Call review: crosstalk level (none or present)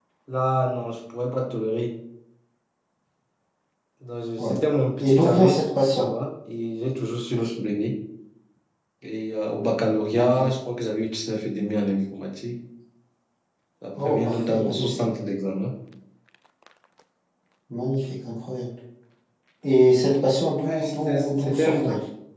present